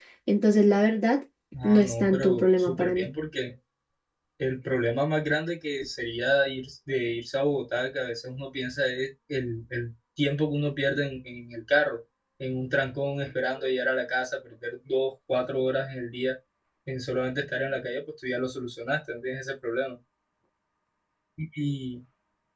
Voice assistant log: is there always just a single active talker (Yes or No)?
No